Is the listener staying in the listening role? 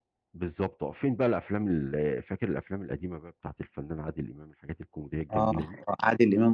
No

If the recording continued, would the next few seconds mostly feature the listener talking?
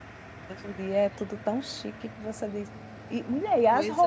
No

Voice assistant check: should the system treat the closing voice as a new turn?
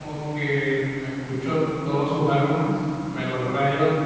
No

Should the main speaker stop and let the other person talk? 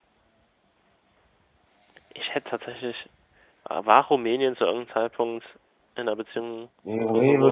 Yes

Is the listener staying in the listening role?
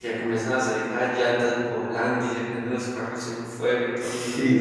No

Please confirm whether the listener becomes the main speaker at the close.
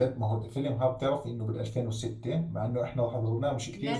Yes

